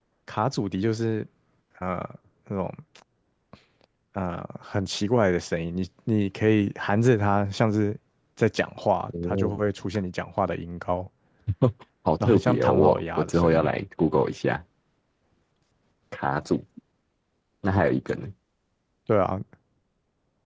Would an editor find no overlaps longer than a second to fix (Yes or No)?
No